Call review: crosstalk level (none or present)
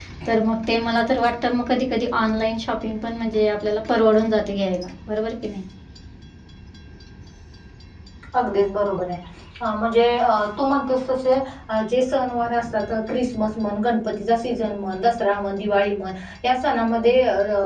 none